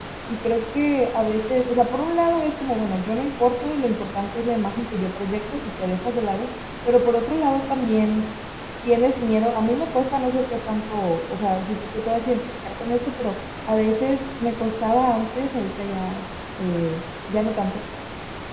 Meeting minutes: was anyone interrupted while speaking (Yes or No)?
No